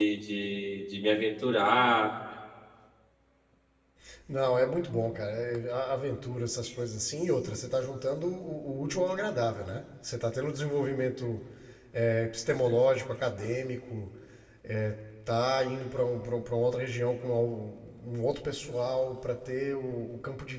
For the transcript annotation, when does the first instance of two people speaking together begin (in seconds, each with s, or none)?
none